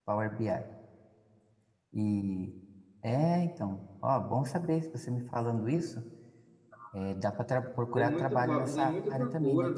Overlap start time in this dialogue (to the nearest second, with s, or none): 8 s